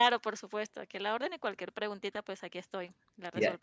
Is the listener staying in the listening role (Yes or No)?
No